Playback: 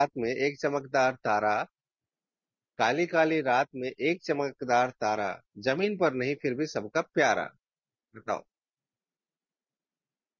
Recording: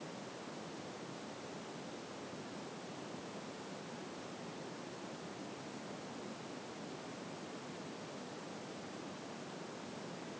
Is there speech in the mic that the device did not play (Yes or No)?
No